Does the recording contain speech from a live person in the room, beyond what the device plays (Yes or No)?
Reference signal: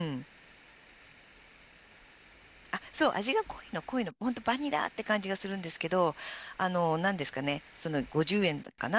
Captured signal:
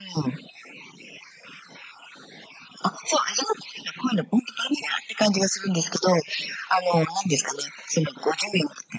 No